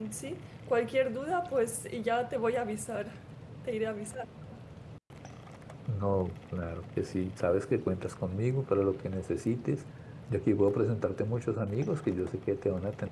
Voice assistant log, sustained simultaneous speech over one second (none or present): none